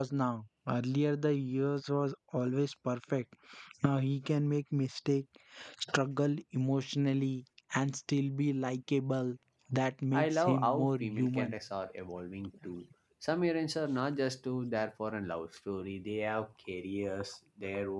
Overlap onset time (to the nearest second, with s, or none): 10 s